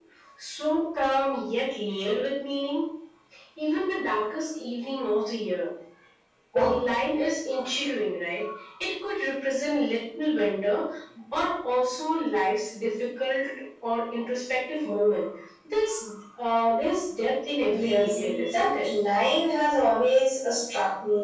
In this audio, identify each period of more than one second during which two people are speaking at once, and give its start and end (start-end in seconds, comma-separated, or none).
17.6-18.9